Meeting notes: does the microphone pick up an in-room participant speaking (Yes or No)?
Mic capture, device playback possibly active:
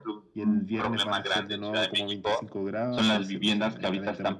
No